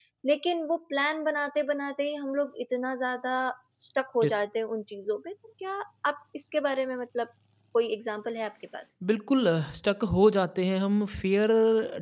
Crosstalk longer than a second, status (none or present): none